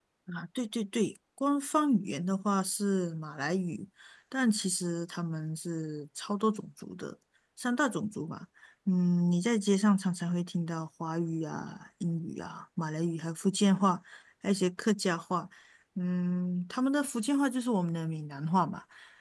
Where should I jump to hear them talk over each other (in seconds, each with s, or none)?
none